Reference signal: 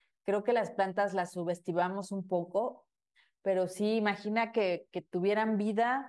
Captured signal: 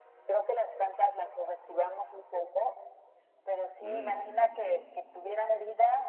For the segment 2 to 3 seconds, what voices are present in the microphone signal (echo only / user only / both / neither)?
echo only